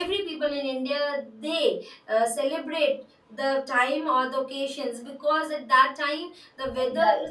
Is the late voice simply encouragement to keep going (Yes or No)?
Yes